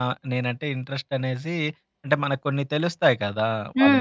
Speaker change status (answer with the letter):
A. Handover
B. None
A